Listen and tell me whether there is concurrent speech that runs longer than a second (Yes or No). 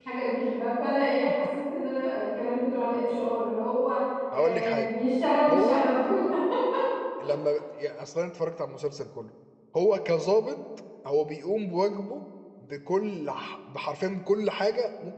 No